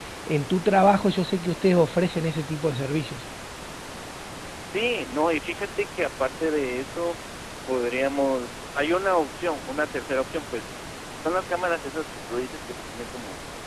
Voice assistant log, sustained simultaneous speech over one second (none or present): none